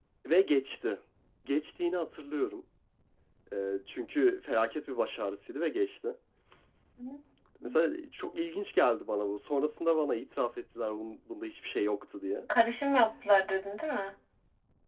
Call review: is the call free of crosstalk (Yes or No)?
Yes